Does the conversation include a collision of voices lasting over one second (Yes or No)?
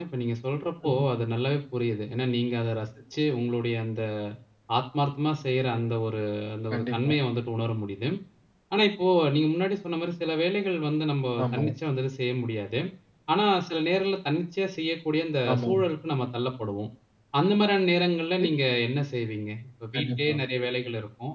No